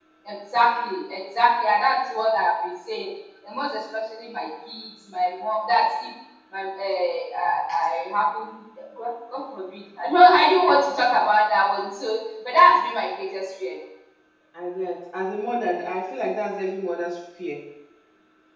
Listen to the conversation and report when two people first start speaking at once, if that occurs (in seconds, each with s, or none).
none